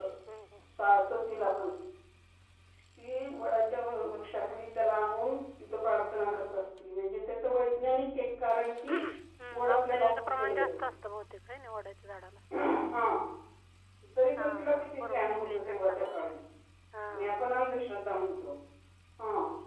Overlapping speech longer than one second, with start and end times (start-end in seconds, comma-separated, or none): 9.5-10.8, 14.4-16.3